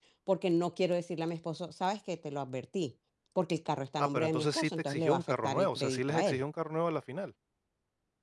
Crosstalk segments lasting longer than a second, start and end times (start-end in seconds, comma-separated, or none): 4.0-6.4